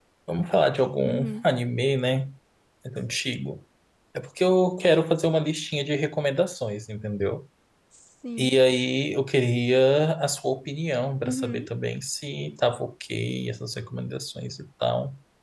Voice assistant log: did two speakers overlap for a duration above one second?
No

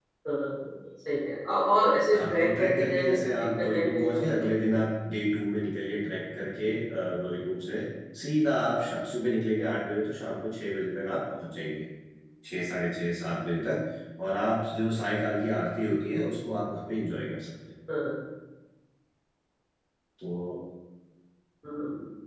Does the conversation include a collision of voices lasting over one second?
Yes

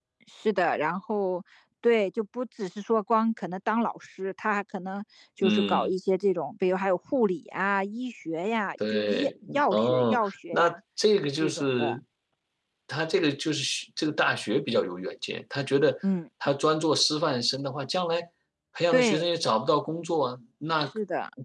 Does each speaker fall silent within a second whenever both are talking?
No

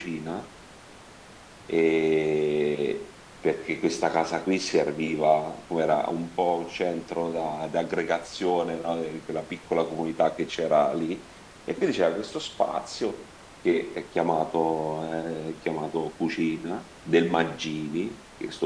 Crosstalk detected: No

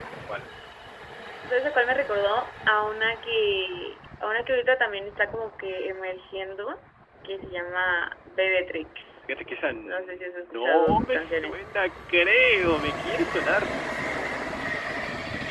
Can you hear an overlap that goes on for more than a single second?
Yes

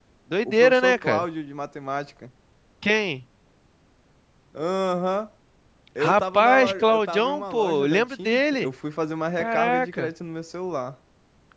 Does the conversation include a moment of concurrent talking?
Yes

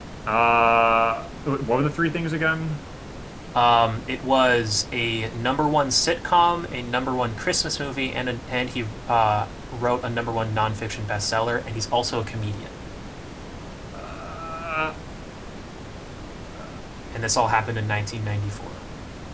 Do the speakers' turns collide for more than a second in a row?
No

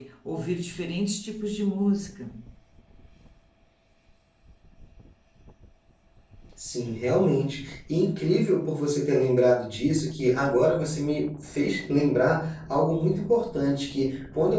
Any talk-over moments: No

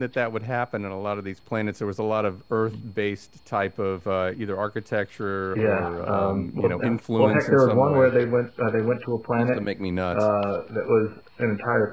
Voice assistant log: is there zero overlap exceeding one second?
No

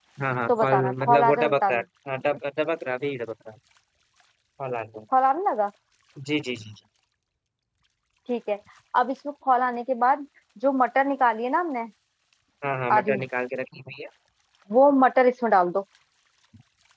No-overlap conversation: No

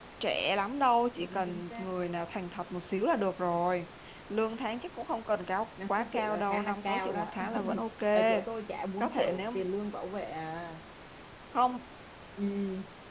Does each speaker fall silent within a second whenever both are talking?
No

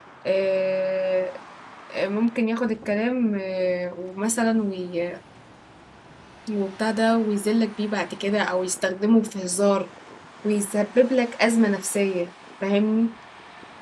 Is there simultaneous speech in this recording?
No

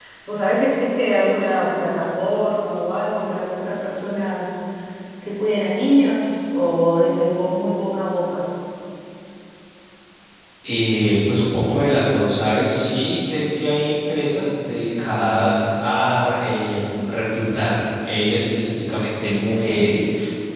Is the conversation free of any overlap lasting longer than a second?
Yes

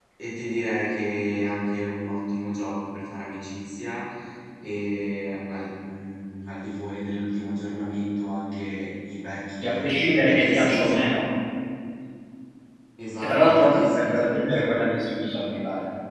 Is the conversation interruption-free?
No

